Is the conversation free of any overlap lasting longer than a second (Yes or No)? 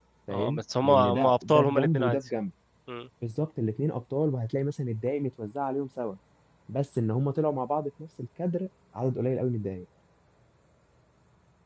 No